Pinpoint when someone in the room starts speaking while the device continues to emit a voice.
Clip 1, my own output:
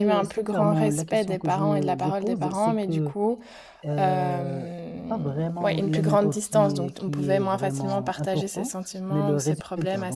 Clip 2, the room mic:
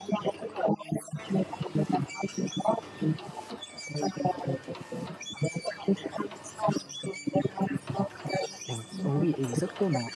8.7 s

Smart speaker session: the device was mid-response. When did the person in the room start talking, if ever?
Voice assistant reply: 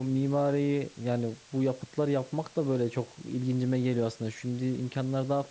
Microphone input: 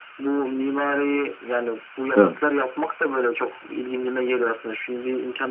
2.1 s

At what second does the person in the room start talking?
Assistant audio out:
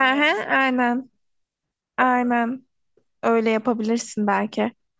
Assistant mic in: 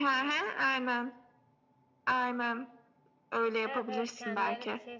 3.6 s

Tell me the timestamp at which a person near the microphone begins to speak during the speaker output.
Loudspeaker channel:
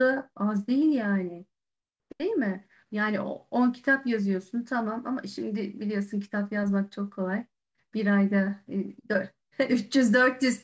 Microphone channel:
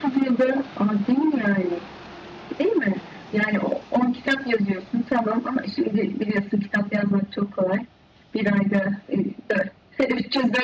none

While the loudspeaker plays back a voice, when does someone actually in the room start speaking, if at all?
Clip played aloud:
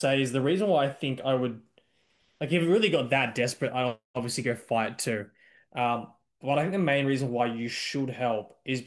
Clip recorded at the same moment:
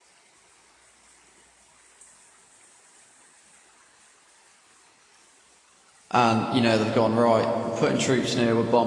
6.1 s

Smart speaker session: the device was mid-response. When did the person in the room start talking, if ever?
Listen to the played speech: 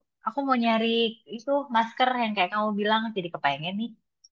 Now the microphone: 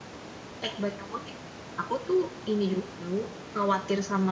0.7 s

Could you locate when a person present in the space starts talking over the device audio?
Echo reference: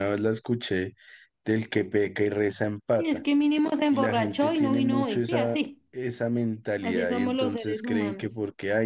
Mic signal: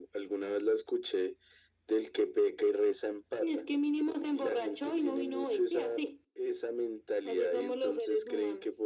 none

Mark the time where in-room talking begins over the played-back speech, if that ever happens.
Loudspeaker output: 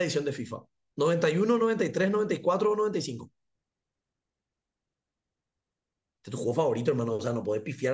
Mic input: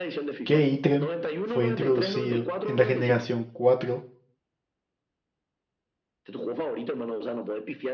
0.4 s

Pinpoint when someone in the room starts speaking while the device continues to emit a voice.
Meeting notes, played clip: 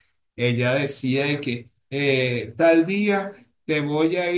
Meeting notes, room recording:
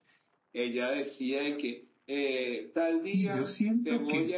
2.9 s

